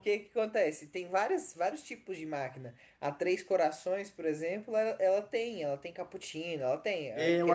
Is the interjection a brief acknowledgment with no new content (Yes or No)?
No